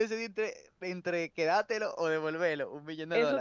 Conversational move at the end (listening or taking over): taking over